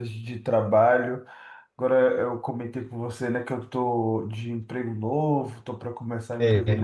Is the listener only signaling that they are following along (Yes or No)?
Yes